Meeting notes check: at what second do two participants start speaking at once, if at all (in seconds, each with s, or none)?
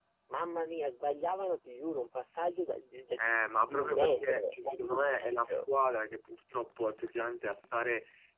3.2 s